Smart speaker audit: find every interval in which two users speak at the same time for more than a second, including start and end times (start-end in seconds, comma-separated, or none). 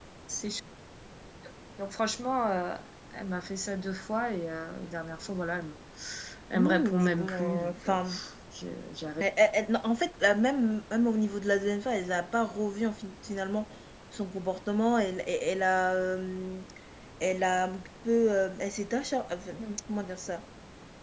6.5-8.0